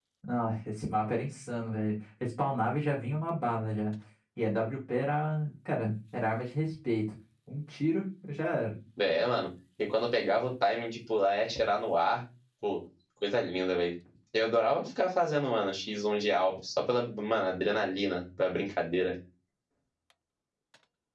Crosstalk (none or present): none